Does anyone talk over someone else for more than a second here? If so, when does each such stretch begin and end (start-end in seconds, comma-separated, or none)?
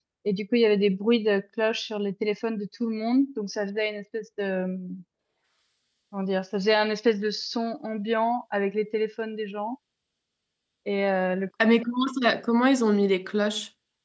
none